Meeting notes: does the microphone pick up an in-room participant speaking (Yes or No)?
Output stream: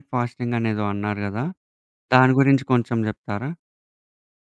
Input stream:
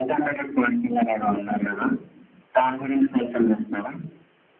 No